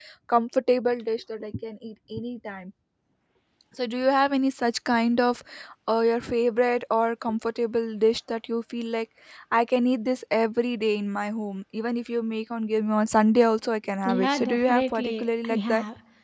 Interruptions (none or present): present